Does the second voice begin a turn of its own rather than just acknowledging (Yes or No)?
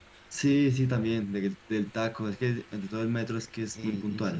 Yes